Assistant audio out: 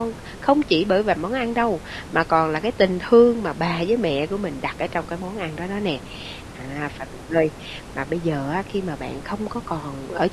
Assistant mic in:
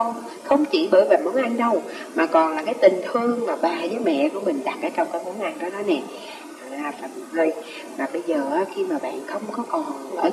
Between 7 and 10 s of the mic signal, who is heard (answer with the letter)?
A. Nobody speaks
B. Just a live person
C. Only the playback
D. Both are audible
C